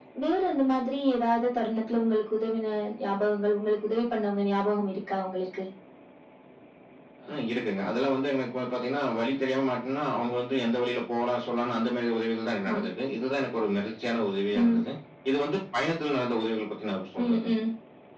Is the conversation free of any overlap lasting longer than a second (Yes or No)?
Yes